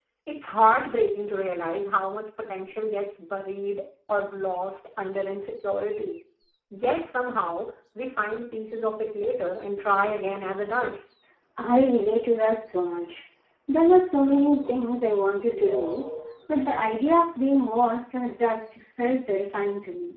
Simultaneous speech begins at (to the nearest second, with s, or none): none